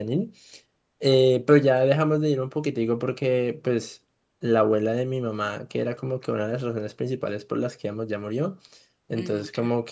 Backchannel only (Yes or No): Yes